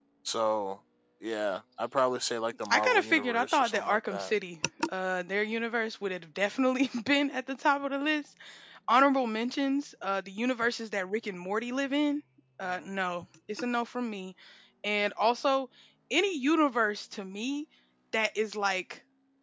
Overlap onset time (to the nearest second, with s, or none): 3 s